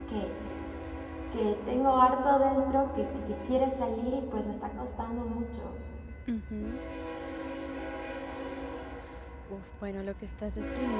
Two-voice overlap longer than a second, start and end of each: none

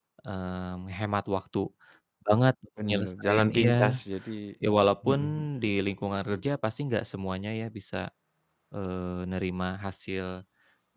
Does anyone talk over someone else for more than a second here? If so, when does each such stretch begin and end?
2.8-4.0

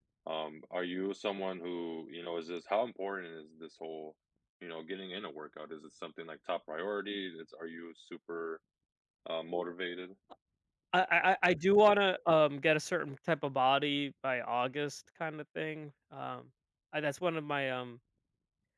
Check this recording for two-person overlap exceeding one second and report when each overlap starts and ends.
none

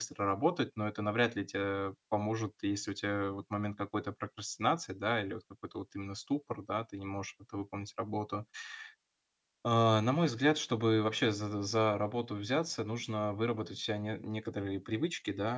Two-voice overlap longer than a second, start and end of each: none

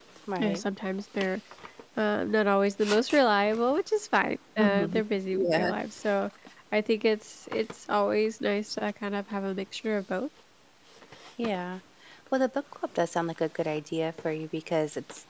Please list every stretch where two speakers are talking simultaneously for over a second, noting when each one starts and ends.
none

